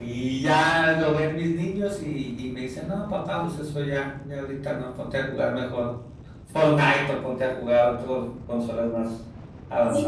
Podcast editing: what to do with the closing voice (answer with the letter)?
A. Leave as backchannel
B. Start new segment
B